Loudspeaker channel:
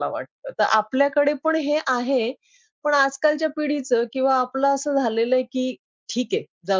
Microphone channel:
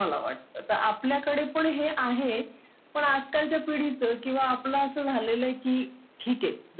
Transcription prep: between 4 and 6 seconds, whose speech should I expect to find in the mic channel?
echo only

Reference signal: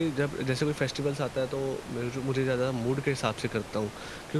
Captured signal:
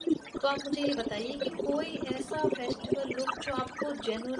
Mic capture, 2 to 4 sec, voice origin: both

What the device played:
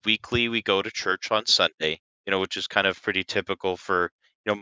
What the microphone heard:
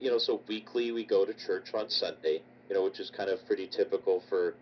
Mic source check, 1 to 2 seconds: echo only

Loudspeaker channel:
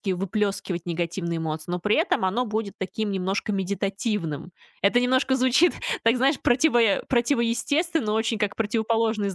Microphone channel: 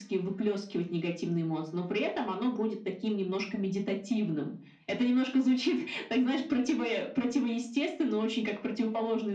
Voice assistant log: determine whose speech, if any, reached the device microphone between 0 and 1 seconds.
echo only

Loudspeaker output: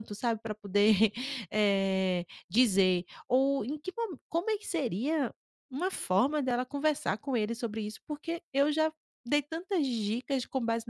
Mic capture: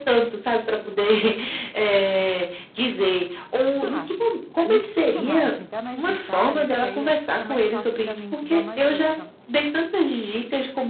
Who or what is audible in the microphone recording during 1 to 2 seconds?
echo only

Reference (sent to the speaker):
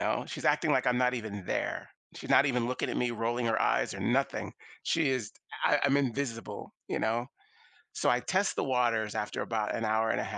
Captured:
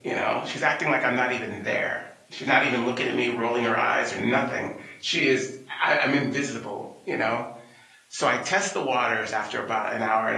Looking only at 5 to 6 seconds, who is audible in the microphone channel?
echo only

